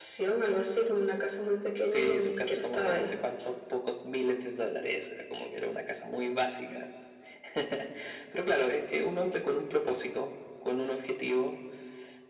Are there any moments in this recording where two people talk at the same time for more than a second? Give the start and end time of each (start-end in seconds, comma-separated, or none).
1.9-3.1